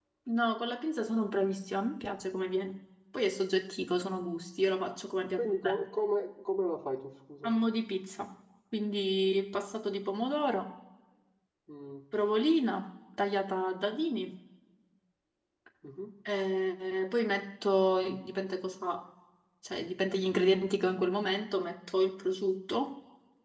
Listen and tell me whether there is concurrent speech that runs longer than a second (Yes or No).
No